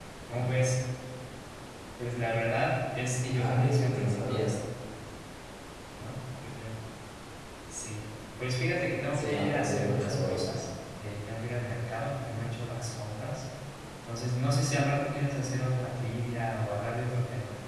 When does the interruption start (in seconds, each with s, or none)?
3.3 s